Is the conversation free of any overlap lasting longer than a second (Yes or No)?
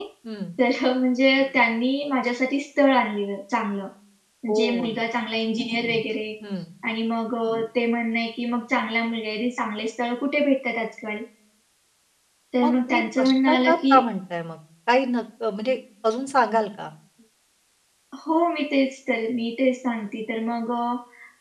No